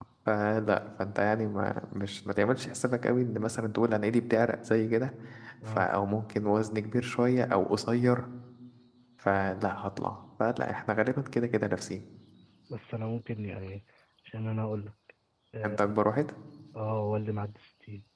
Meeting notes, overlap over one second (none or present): none